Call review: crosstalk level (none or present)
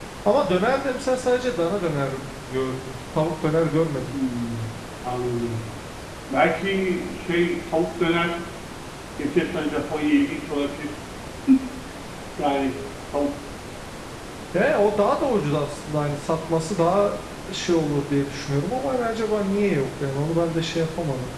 none